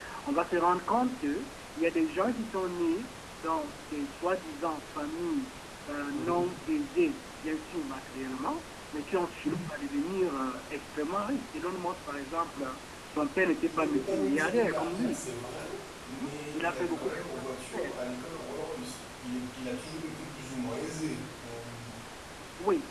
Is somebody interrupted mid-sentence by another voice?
Yes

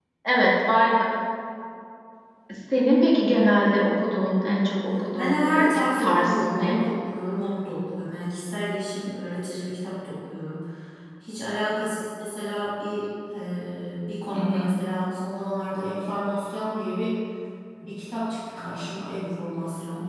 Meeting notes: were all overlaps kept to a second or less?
No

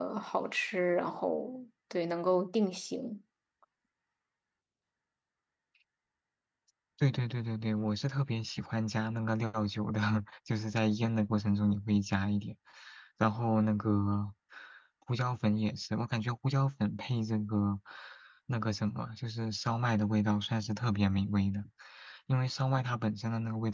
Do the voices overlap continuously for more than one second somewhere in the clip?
No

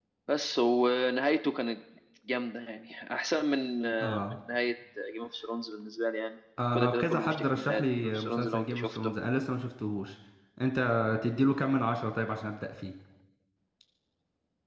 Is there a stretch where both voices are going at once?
Yes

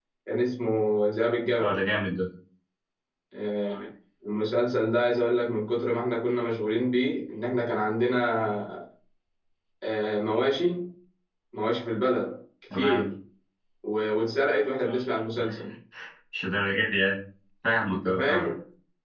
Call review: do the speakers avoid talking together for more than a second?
Yes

